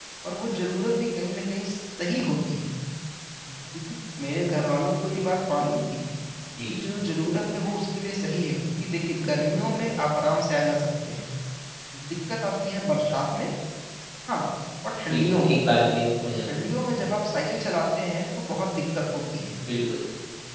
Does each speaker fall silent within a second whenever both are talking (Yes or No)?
Yes